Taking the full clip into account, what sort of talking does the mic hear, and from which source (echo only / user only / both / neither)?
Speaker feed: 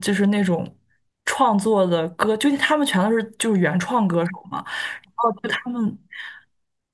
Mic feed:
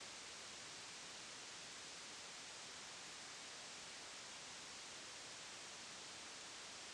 neither